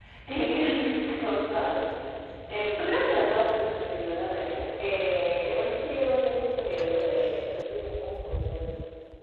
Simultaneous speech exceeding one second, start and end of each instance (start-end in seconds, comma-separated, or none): none